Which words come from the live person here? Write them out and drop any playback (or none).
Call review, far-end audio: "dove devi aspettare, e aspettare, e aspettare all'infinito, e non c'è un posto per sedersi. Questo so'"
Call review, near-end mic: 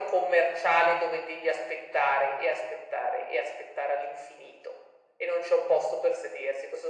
none